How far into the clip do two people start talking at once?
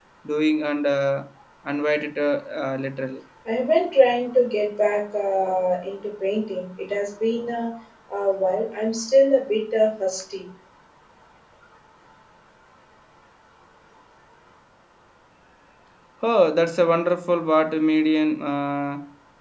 none

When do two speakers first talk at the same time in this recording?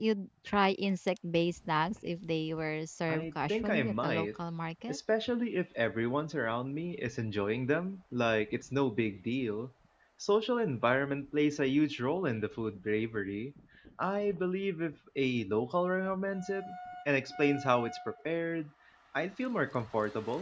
3.1 s

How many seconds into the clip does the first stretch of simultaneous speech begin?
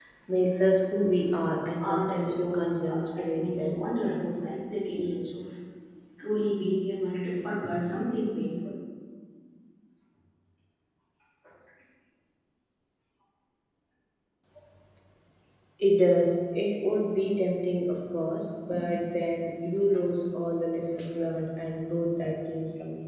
1.8 s

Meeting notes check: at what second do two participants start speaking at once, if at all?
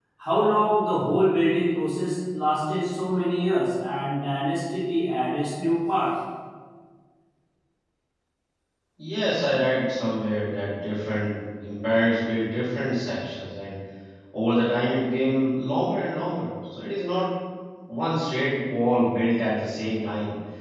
none

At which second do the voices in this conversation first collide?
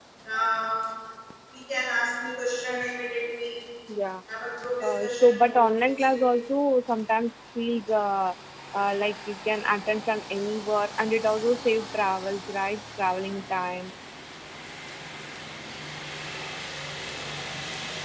4.8 s

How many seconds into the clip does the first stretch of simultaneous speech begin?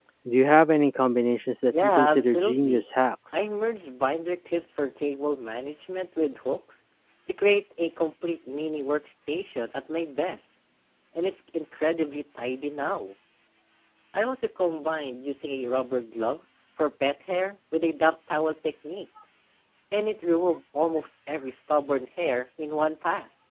1.6 s

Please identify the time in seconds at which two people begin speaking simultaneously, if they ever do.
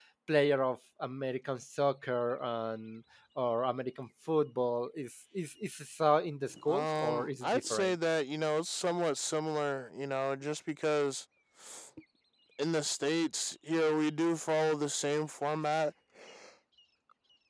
6.5 s

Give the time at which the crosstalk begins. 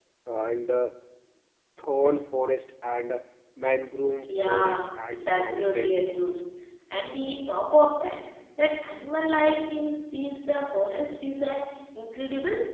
4.3 s

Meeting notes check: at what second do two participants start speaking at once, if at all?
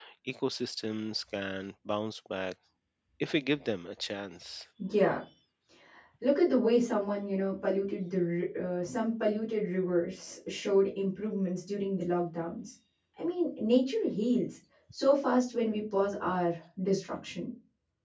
none

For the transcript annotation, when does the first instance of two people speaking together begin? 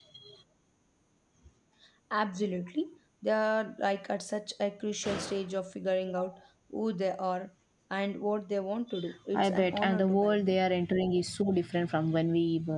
9.3 s

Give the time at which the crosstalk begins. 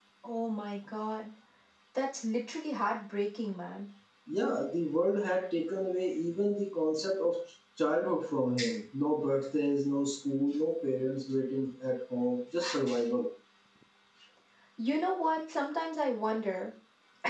none

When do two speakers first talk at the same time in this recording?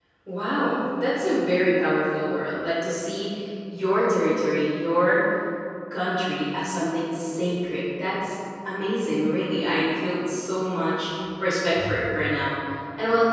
none

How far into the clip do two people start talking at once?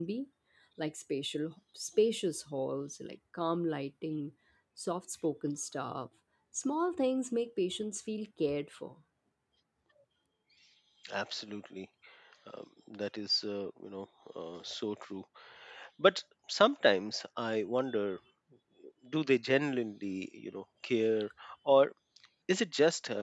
none

